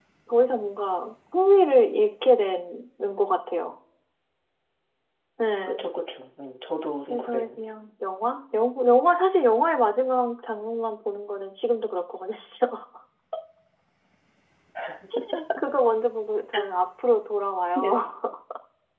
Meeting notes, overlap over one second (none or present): none